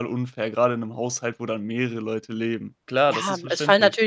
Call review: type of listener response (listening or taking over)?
taking over